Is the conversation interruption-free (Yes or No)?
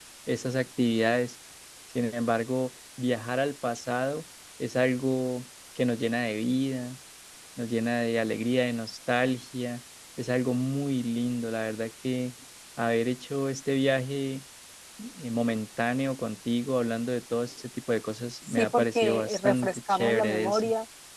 No